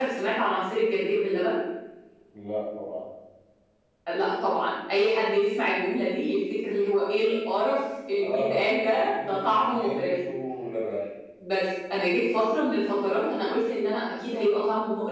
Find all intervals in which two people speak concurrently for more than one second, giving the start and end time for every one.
8.2-10.2

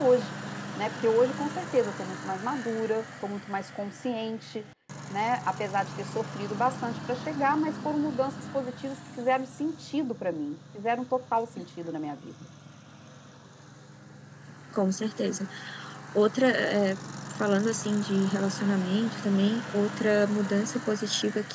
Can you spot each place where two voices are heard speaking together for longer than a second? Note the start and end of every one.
none

